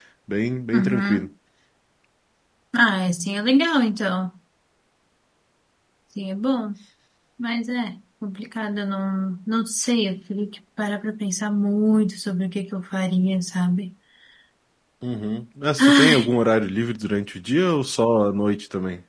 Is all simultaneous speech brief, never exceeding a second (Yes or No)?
Yes